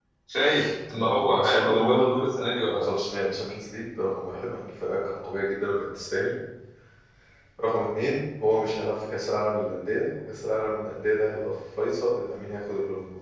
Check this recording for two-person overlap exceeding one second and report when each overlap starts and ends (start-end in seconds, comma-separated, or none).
0.9-2.2